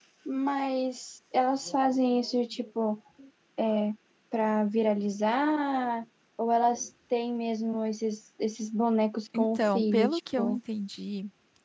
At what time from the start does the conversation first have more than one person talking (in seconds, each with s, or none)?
9.3 s